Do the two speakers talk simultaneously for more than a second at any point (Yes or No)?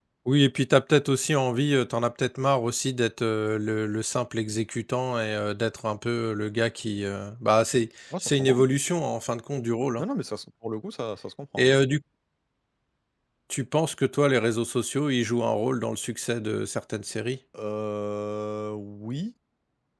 No